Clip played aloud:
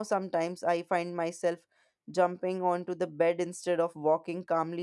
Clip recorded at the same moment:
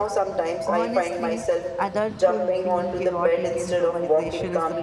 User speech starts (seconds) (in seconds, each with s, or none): 0.7 s